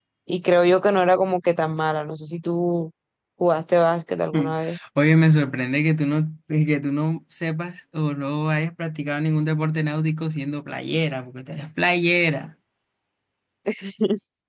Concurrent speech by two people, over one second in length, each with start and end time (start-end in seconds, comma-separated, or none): none